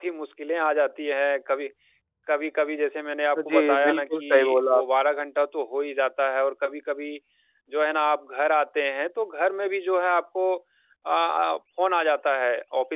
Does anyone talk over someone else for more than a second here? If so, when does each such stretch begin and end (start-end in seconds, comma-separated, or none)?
3.5-4.8